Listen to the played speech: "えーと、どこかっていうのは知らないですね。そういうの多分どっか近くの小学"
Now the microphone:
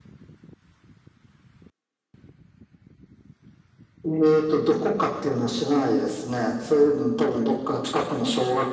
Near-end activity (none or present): none